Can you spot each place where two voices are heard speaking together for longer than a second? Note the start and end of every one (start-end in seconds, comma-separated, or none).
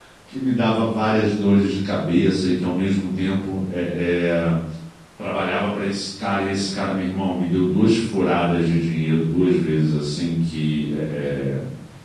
none